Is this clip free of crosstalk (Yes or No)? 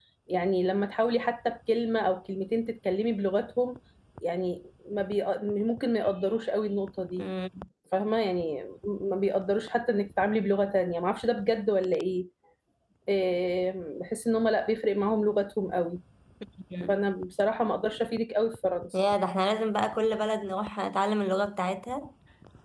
Yes